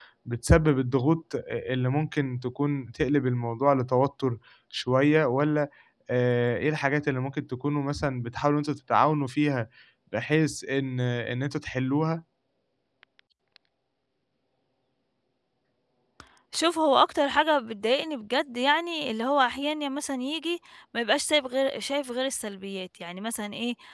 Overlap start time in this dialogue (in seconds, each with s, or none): none